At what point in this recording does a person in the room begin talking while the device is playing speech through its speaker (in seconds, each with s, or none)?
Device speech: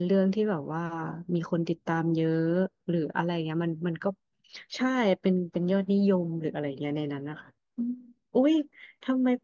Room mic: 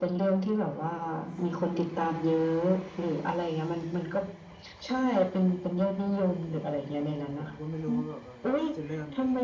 7.3 s